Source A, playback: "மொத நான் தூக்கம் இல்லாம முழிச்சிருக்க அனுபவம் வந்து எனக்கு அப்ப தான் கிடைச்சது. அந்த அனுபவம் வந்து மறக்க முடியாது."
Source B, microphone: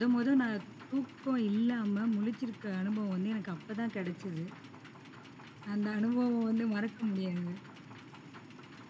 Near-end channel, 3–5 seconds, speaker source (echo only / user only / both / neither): echo only